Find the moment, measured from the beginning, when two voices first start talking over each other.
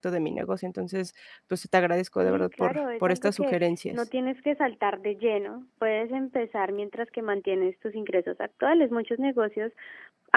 2.2 s

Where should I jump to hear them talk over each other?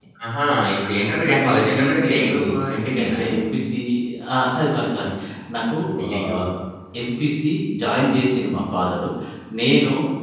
1.3 s

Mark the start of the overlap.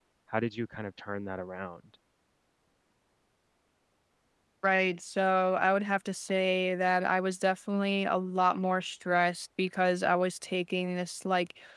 none

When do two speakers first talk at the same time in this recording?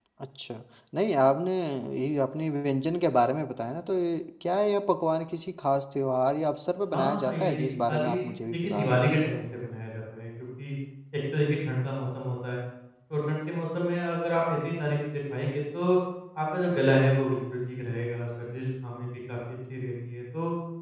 6.9 s

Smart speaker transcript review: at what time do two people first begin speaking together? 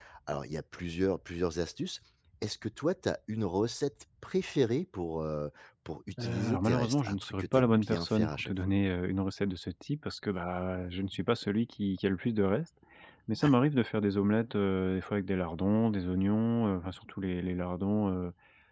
6.2 s

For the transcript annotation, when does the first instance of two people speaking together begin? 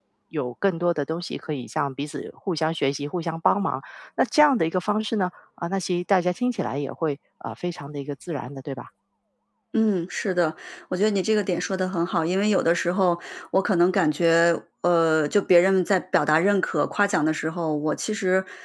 none

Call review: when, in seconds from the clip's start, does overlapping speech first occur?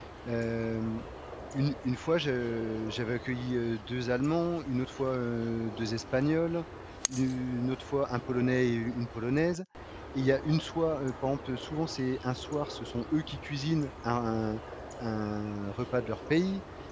none

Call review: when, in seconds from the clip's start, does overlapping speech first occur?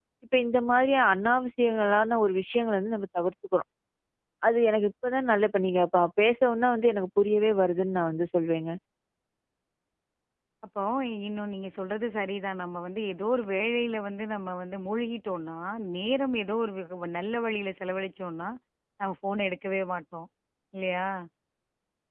none

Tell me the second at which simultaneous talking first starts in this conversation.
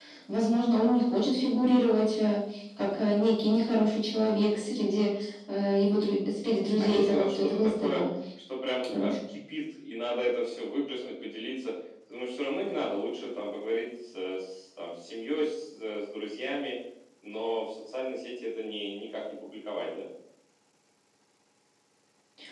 6.8 s

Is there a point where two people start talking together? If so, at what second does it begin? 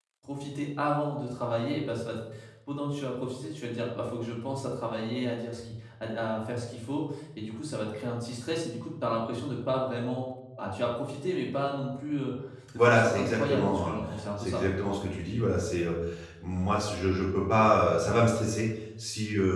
12.8 s

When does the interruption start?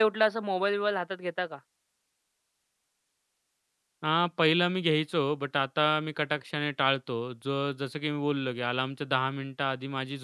none

